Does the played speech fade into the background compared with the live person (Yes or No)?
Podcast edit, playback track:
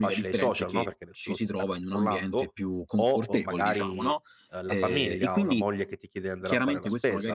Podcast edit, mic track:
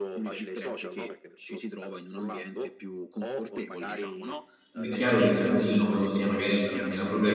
Yes